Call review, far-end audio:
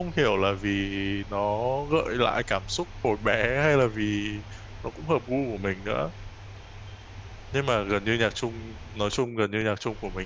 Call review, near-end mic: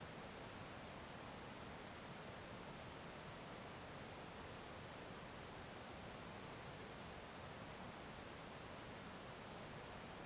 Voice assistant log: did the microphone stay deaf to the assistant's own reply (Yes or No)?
Yes